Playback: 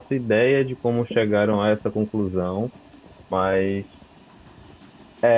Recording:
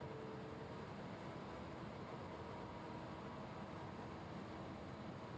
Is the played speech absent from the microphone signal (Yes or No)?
Yes